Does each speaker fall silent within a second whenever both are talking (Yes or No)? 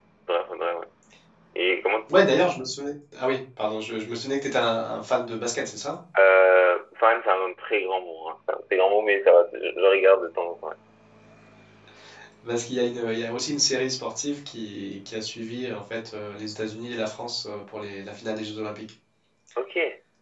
Yes